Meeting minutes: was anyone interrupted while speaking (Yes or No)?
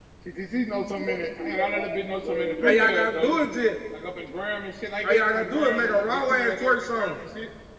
Yes